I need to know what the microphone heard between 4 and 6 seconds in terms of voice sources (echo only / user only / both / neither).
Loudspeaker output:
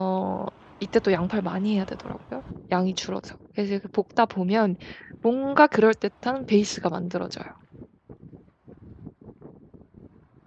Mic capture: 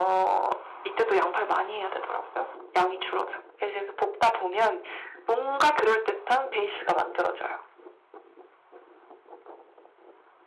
echo only